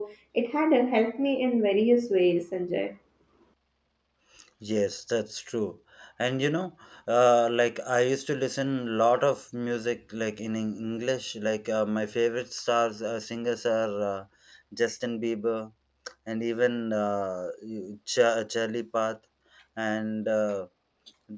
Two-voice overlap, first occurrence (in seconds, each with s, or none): none